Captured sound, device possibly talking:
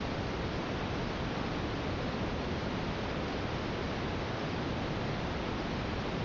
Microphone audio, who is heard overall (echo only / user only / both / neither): neither